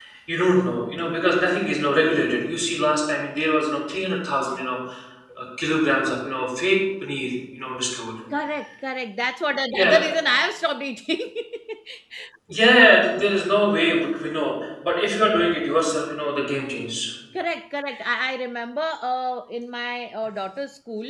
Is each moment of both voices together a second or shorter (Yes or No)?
Yes